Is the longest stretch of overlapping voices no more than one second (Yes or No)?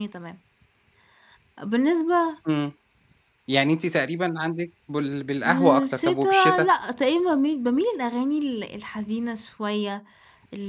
No